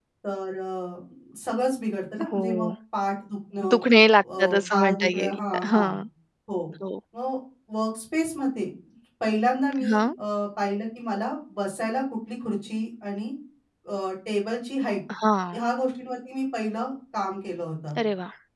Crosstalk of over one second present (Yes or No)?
Yes